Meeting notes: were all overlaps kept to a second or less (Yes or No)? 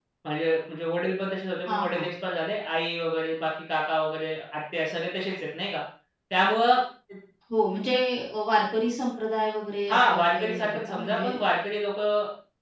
No